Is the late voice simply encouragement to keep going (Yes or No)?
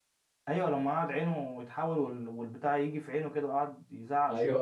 No